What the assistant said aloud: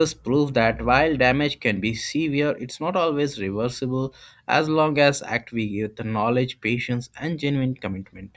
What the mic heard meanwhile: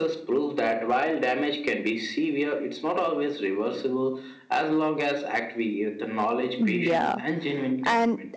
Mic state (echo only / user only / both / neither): both